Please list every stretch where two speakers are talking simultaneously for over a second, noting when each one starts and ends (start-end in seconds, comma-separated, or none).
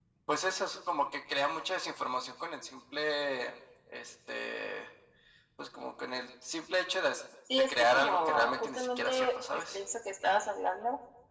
7.6-9.8